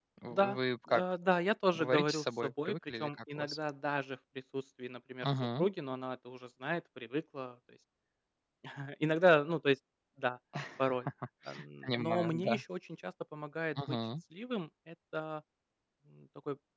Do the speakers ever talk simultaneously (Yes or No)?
Yes